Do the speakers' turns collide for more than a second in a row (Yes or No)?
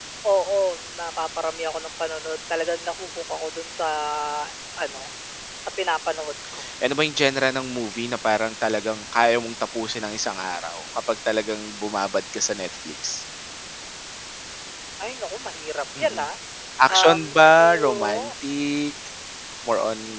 Yes